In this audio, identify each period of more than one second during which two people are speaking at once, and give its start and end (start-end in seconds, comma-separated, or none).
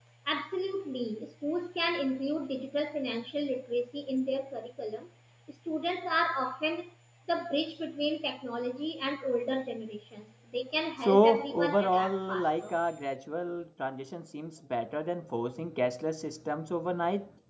11.0-12.8